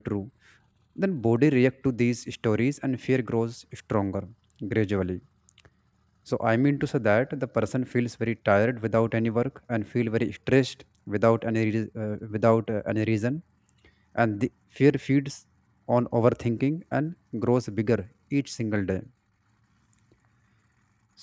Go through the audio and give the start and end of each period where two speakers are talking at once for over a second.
none

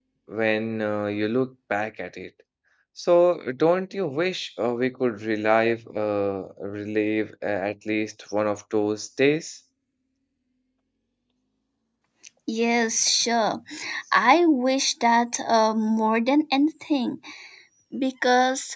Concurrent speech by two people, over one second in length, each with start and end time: none

